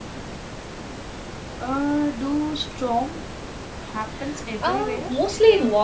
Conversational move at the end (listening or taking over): taking over